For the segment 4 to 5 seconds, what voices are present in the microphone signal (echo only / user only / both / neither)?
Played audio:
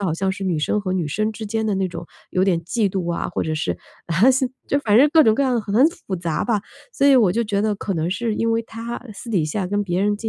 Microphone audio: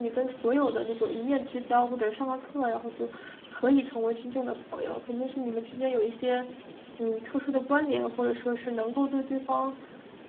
user only